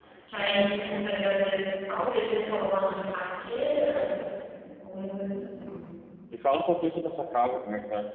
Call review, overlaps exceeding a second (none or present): none